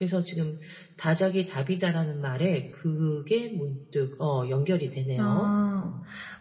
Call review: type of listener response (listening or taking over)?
taking over